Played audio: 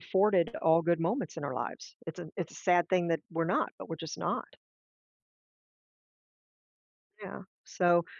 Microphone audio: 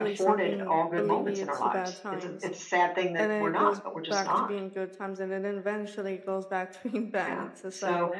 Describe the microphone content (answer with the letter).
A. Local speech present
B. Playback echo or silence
A